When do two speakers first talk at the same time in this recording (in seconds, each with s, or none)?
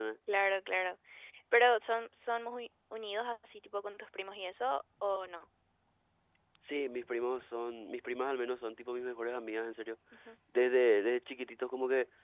none